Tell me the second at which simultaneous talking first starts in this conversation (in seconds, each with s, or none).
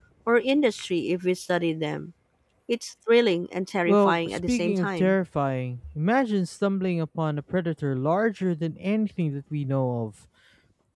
3.9 s